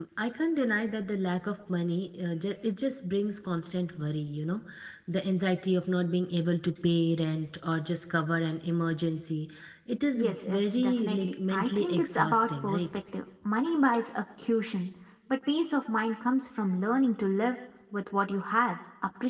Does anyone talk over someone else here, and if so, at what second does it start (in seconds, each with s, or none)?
10.1 s